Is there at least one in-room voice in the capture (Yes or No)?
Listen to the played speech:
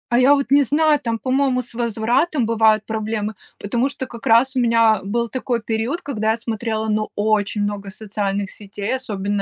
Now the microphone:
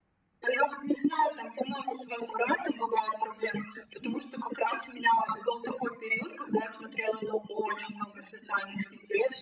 No